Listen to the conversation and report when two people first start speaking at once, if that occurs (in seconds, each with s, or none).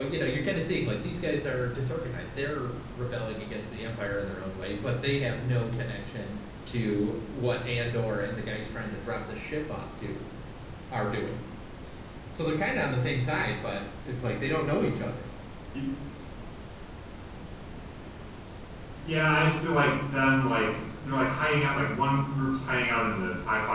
none